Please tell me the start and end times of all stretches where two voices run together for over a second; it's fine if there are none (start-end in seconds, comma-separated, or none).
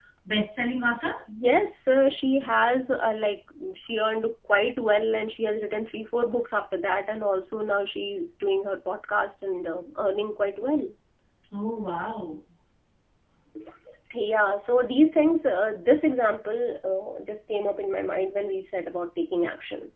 none